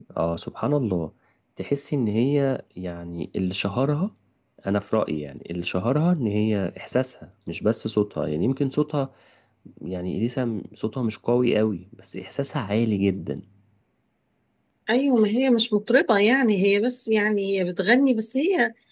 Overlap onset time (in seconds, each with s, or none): none